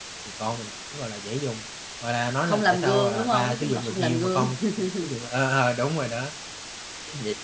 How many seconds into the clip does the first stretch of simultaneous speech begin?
2.5 s

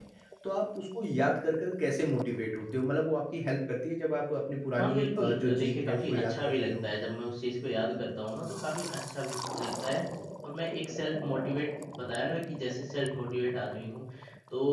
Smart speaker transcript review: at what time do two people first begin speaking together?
4.8 s

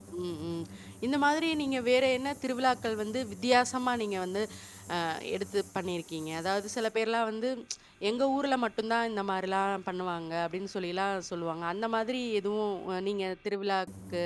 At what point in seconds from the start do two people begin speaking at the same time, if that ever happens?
none

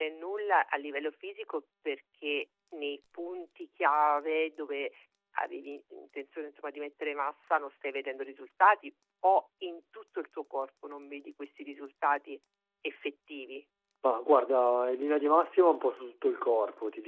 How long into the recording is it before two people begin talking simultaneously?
none

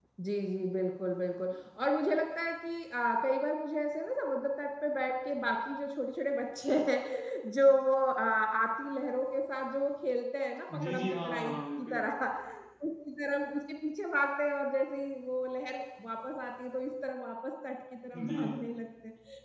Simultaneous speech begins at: 10.7 s

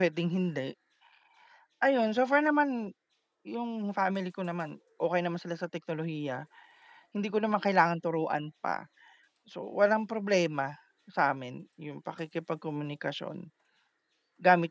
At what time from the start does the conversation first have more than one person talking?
none

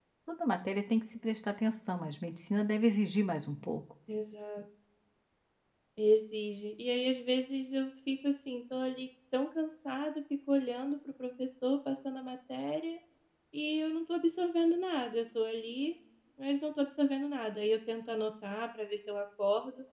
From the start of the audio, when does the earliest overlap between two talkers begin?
none

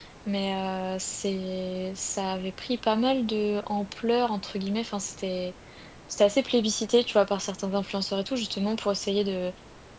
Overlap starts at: none

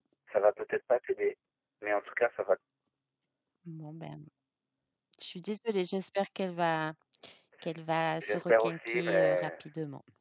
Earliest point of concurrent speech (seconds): 8.2 s

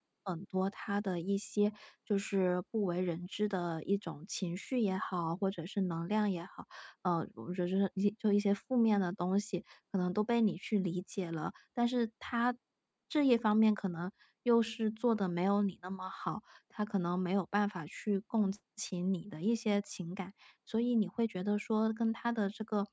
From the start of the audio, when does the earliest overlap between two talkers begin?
none

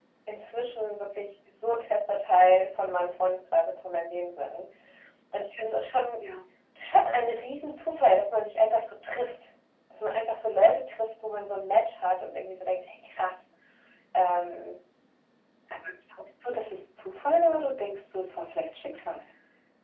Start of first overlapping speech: none

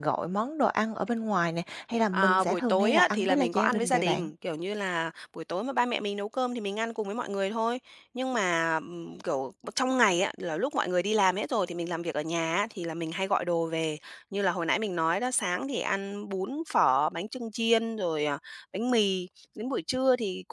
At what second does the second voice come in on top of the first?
2.1 s

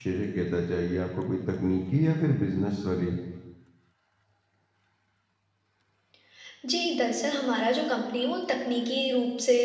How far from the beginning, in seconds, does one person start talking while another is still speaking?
none

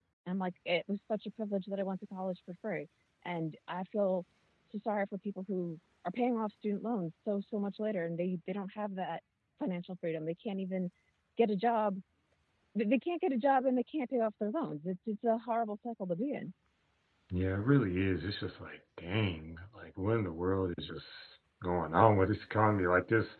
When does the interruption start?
none

